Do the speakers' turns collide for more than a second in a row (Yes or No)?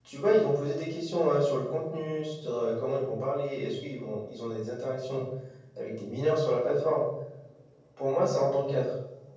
No